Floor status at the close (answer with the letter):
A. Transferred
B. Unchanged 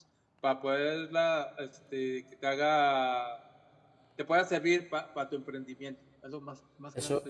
A